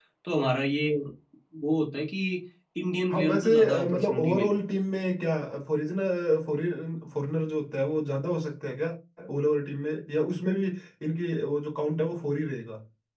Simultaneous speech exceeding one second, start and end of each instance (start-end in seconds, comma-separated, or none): 3.1-4.6